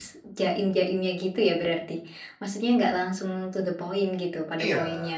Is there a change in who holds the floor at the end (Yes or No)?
Yes